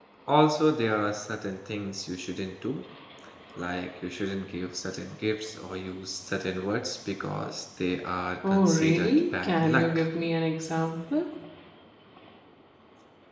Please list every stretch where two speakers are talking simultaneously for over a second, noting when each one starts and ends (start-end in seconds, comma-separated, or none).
8.5-10.1